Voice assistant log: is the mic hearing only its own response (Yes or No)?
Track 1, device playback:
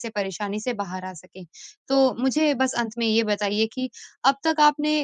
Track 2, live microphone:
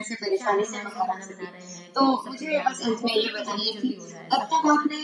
No